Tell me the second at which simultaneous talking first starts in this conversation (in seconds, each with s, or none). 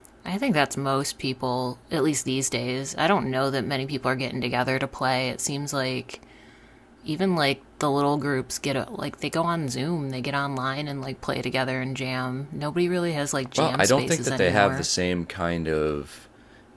13.6 s